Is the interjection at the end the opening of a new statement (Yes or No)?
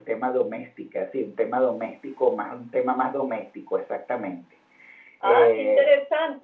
Yes